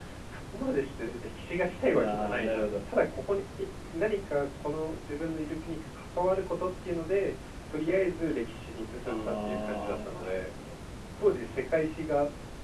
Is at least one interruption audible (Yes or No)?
Yes